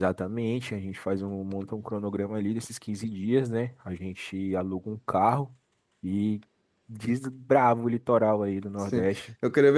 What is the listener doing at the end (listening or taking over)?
taking over